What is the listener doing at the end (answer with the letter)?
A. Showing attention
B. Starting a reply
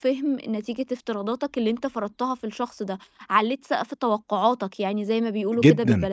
B